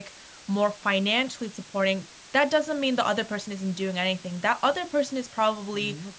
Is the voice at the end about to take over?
No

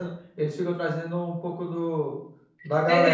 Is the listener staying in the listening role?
No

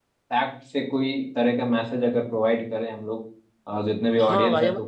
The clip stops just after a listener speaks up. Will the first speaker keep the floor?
No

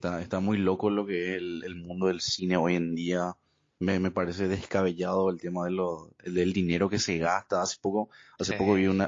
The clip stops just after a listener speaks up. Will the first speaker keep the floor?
Yes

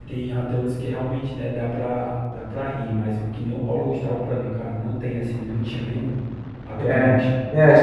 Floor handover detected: Yes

